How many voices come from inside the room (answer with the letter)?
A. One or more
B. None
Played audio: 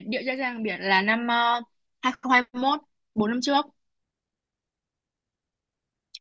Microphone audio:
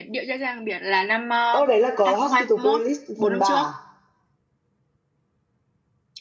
A